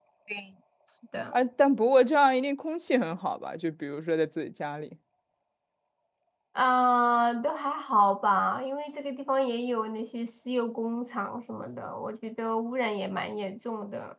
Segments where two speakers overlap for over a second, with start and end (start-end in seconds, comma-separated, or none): none